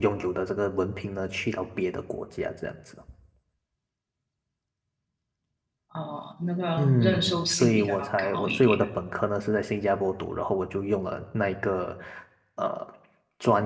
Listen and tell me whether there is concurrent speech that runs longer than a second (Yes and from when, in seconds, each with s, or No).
Yes, from 6.8 s